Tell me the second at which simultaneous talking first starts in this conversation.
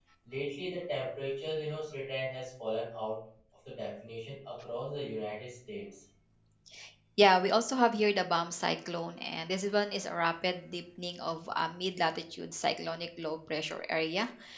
none

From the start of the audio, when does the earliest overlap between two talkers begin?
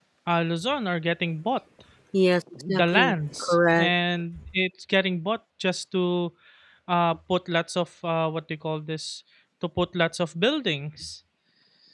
2.7 s

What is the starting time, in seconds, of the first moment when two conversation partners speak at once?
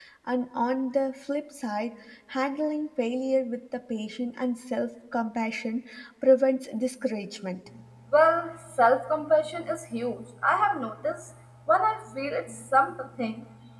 none

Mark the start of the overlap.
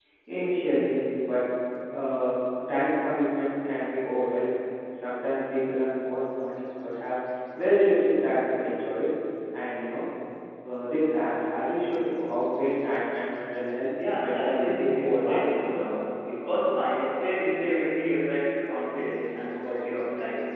14.2 s

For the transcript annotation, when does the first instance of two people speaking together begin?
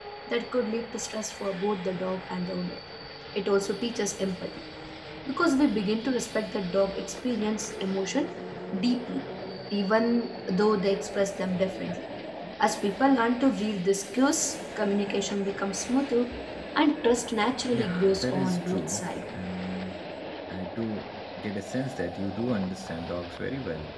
17.7 s

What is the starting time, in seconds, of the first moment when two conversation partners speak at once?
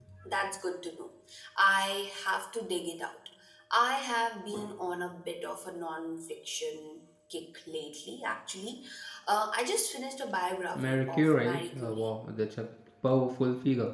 10.8 s

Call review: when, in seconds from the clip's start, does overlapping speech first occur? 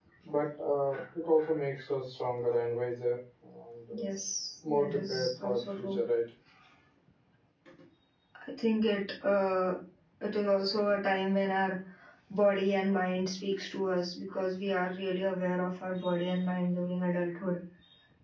4.7 s

